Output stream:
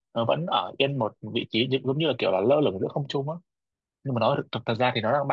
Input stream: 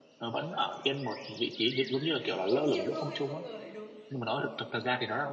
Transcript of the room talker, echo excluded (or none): ngẫu nhiên thôi không ngờ lại đúng